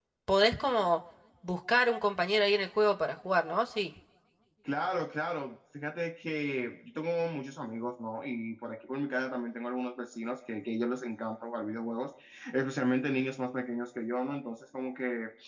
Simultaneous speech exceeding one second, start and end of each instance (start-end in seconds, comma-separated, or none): none